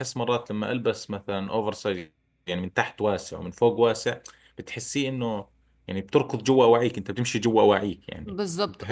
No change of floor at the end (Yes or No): No